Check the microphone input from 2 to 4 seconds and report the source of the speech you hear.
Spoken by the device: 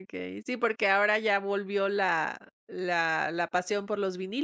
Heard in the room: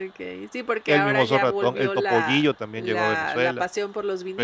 both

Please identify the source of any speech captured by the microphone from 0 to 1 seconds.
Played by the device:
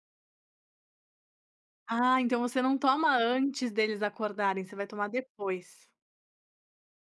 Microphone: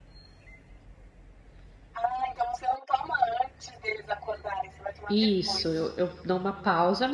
neither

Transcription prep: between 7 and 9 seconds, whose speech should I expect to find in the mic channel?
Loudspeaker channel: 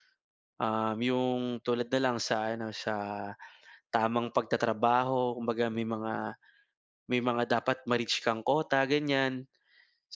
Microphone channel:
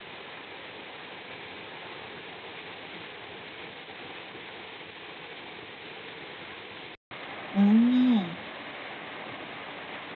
user only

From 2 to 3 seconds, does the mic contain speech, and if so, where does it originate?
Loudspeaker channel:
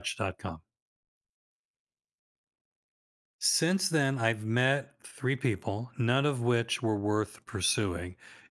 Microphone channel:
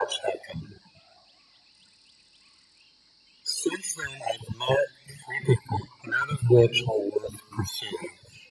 neither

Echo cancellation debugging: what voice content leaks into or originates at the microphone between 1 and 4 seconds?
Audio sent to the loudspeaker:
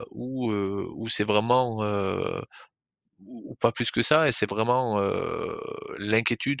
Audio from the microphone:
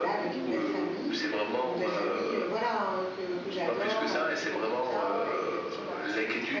both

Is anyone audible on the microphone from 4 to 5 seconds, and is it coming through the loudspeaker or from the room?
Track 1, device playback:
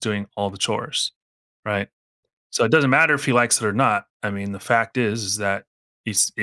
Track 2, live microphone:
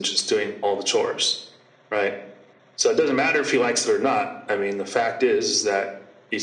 echo only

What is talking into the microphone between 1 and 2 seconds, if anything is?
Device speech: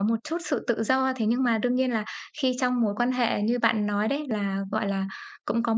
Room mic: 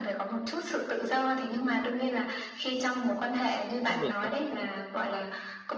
echo only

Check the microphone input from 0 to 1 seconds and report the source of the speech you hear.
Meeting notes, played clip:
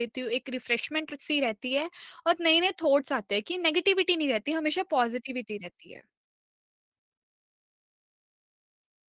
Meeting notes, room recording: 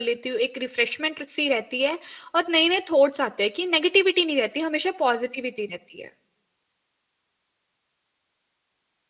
echo only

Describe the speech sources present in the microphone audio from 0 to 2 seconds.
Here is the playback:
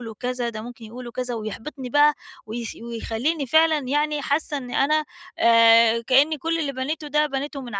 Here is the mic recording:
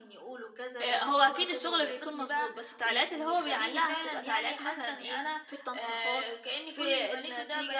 both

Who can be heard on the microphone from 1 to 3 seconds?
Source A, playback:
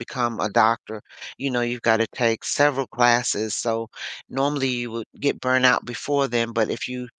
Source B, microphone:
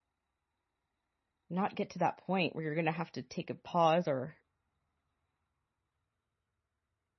user only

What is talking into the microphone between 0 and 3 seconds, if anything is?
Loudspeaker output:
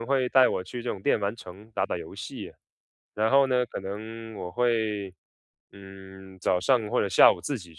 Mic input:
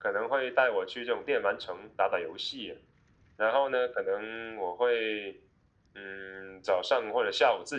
echo only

